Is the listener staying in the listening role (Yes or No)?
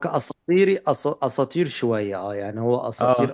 Yes